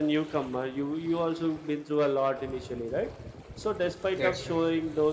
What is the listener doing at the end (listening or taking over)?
listening